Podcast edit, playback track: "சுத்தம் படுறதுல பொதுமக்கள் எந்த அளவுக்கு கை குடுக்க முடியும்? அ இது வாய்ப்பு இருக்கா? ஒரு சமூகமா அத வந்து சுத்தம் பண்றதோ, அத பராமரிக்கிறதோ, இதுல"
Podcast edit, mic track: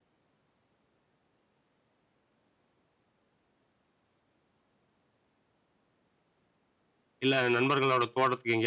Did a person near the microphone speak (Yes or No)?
Yes